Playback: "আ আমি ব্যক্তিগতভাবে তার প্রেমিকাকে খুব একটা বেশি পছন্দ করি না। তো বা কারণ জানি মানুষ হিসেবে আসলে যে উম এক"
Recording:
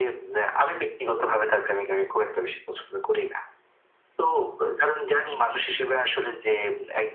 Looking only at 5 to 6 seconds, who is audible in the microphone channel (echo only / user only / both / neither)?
echo only